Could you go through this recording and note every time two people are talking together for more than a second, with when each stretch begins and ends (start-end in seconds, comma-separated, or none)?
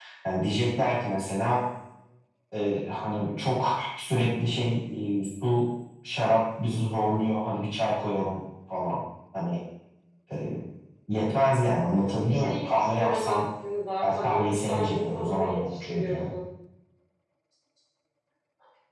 11.9-13.4, 14.0-16.1